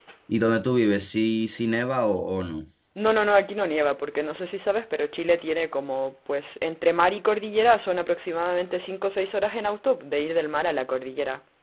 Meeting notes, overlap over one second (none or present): none